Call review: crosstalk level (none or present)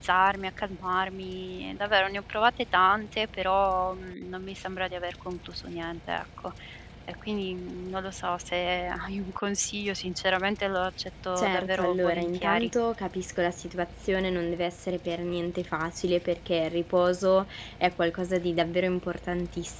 present